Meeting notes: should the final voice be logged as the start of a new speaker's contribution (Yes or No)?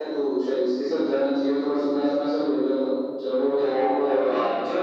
Yes